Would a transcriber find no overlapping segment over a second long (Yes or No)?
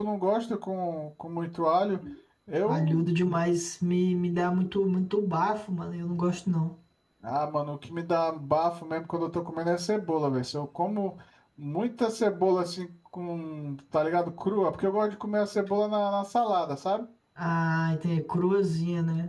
Yes